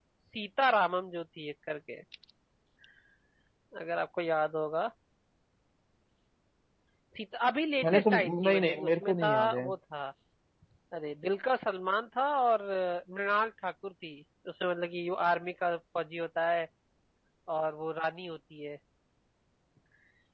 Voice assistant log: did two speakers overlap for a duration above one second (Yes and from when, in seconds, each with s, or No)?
Yes, from 7.8 s